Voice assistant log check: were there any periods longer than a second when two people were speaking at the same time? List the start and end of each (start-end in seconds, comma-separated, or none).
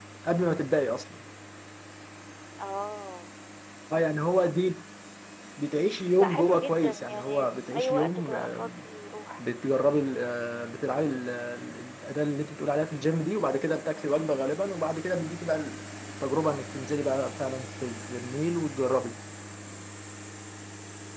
6.2-8.7